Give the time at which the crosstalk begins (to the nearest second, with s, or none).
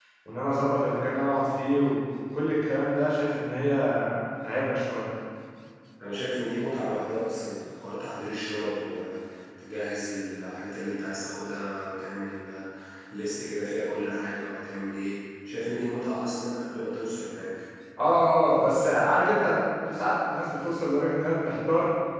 none